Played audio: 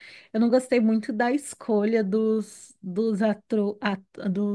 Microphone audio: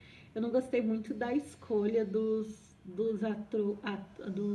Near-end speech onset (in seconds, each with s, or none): none